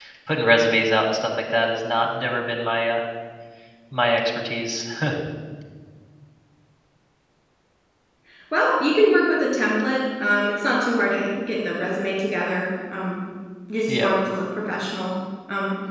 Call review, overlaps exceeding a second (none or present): none